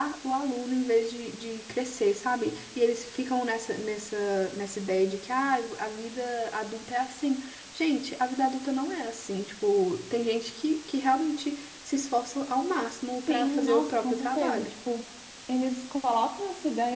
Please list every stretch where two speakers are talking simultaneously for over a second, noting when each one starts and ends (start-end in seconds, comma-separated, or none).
13.3-14.7